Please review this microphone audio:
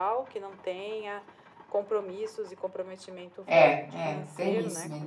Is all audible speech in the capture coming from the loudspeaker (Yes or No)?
No